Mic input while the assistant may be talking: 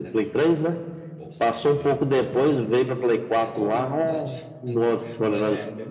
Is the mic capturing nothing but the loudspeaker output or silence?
No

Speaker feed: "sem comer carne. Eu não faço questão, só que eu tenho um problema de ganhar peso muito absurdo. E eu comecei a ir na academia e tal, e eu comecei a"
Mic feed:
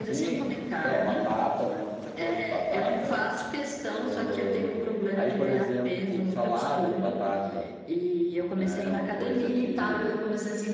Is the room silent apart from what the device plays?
No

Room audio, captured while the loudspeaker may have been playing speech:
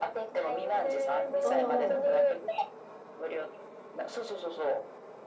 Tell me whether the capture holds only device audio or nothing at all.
No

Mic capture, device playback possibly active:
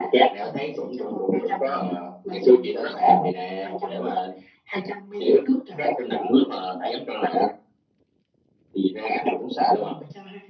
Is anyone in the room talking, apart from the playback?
No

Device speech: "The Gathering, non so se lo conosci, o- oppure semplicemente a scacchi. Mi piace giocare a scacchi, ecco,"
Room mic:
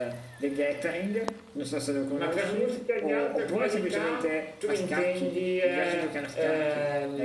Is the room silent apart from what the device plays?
No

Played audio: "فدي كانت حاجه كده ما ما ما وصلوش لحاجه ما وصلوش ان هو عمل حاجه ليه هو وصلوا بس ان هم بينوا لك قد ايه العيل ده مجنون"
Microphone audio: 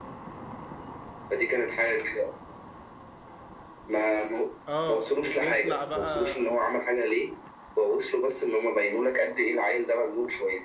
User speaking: Yes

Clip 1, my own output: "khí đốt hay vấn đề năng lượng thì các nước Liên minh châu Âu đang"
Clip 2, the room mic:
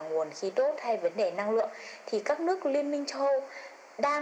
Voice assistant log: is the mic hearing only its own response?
Yes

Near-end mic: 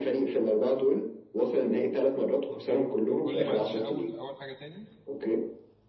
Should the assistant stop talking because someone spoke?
Yes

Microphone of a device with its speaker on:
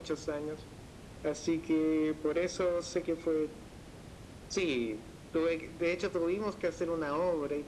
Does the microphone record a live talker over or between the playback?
No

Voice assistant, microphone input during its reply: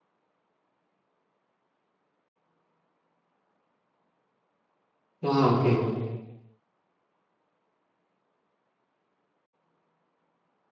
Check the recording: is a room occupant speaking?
Yes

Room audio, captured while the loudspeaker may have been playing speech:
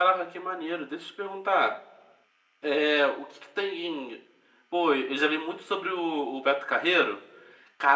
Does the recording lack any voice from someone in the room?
No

